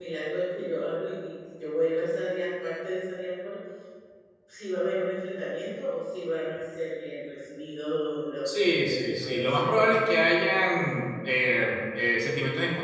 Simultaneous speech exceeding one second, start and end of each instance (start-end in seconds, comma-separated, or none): 8.6-9.8